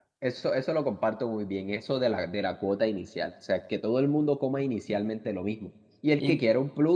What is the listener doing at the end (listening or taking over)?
listening